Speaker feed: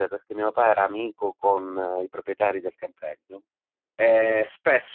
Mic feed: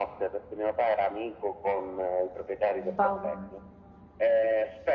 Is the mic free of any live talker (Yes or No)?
No